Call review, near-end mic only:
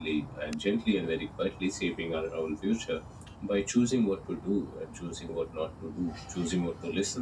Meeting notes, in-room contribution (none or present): none